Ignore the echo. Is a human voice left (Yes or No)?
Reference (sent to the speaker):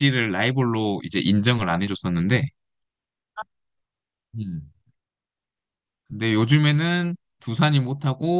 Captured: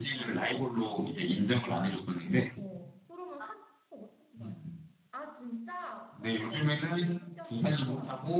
Yes